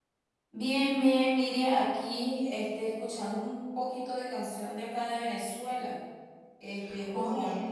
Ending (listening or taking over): listening